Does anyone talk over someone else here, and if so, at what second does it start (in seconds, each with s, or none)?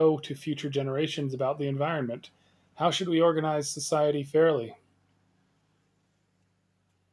none